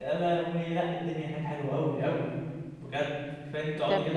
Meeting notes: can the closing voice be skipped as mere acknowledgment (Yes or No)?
Yes